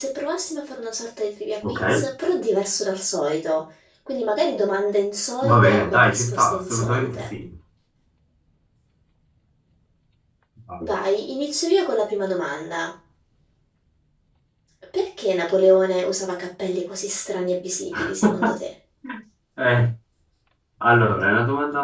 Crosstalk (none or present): present